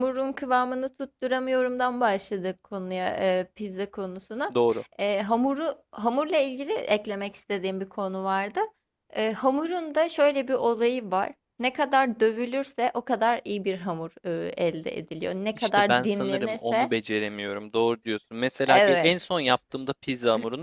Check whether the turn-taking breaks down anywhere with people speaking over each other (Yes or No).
Yes